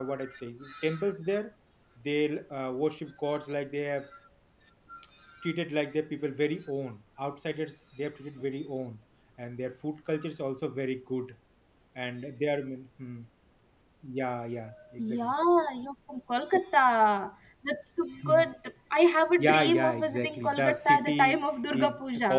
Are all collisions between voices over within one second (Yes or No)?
No